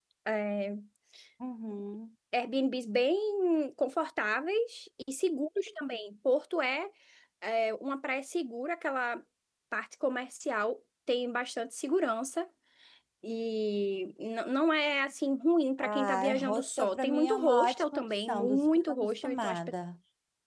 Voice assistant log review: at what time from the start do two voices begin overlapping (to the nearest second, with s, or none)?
16 s